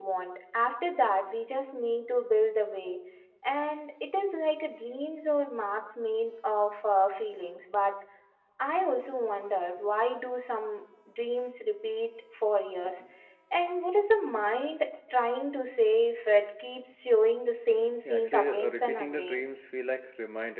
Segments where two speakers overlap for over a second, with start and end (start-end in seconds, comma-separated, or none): 18.0-19.4